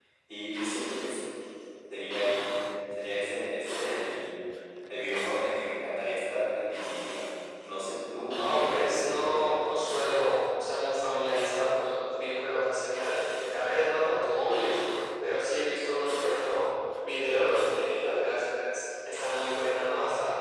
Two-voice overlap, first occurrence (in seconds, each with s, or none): 8.3 s